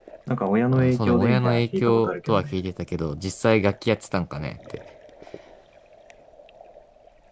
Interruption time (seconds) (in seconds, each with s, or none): 0.7 s